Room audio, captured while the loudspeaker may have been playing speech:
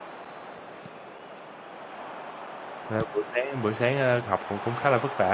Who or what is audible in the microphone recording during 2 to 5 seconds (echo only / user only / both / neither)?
user only